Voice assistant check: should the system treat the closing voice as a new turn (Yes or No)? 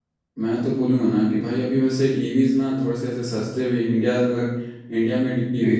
No